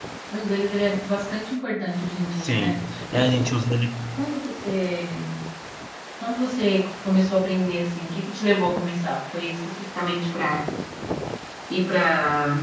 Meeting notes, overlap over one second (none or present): none